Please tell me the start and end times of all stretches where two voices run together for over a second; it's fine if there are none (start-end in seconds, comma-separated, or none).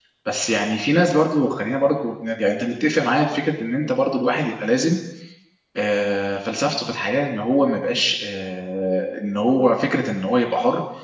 none